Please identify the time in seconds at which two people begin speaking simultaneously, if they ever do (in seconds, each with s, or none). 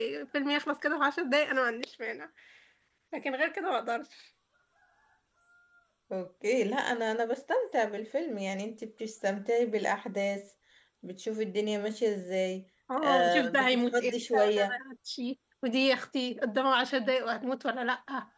12.9 s